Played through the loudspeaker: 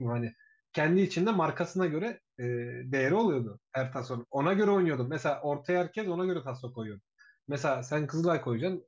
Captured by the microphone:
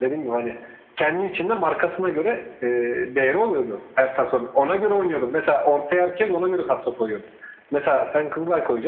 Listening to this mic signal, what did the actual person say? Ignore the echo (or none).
none